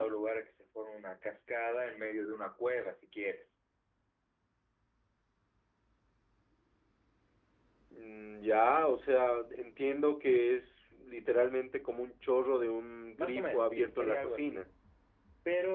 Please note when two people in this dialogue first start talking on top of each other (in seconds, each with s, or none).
13.2 s